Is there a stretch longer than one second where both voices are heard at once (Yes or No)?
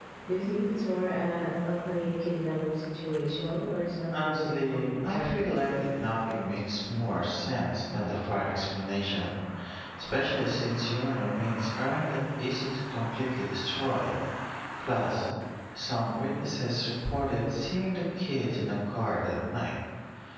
Yes